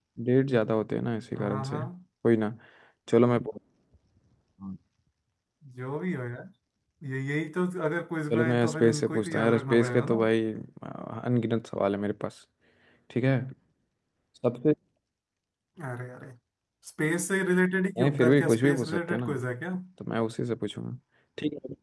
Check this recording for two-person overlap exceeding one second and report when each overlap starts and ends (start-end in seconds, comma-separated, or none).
8.3-10.2, 18.0-19.3